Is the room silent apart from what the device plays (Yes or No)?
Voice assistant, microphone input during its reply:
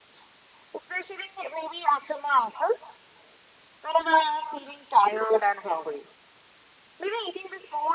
Yes